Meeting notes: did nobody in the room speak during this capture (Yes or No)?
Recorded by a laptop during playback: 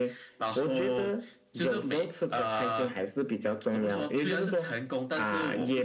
Yes